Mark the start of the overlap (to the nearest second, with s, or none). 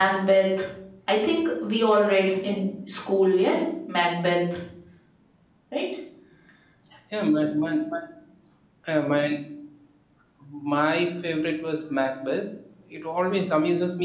none